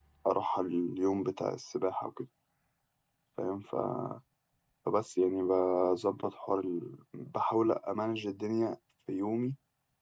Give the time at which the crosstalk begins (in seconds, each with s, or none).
none